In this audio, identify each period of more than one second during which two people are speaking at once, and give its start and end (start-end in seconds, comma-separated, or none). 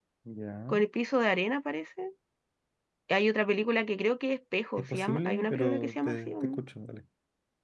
4.8-6.6